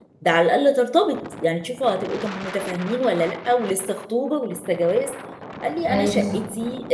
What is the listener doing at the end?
listening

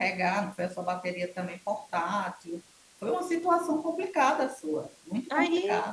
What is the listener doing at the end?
taking over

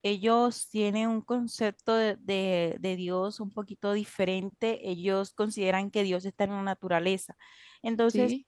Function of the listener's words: listening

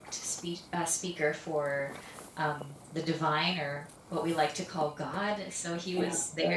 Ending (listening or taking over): listening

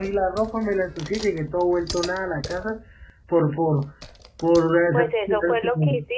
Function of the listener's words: taking over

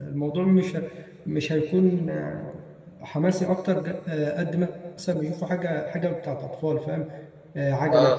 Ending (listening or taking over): listening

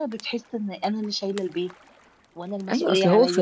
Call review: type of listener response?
taking over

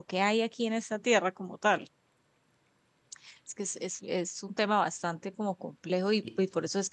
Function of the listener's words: listening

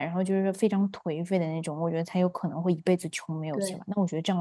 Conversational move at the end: listening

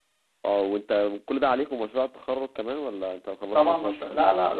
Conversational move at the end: taking over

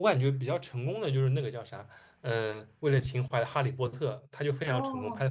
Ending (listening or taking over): taking over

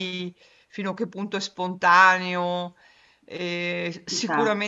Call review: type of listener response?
listening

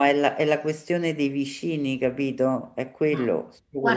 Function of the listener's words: taking over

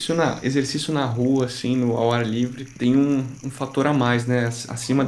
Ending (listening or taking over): taking over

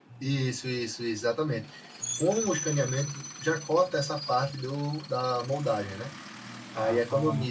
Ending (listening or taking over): listening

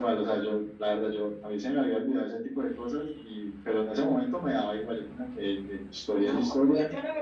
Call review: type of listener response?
taking over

